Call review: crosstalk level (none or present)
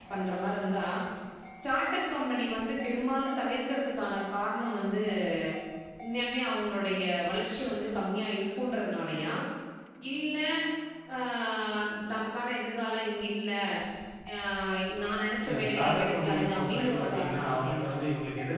present